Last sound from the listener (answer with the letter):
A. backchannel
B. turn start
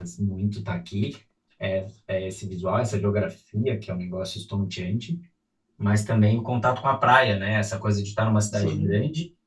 A